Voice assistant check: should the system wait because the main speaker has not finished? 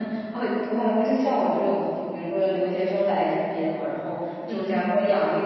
Yes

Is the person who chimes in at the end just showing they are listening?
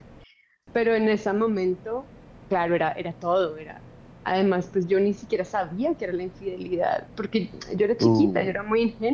Yes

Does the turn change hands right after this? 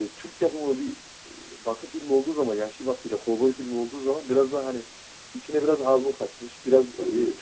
No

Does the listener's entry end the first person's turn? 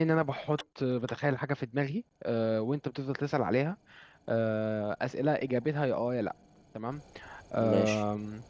No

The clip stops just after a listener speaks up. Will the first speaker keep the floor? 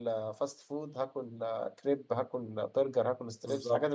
No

